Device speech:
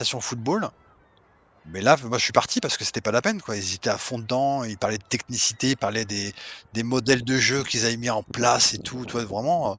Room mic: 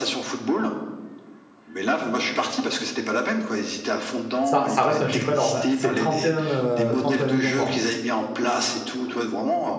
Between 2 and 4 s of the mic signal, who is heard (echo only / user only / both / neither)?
echo only